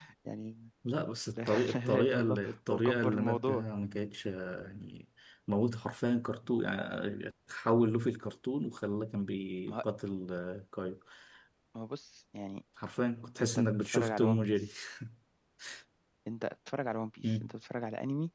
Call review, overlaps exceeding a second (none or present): present